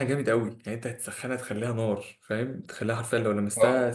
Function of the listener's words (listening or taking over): listening